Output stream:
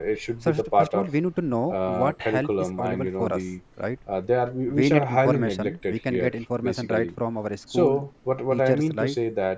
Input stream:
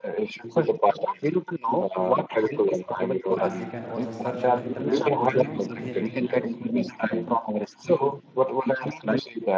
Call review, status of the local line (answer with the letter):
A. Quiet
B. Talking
B